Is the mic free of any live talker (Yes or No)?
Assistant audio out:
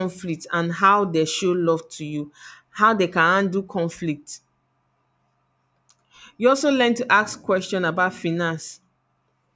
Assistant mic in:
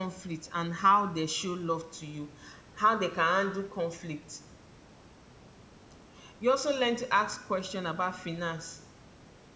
Yes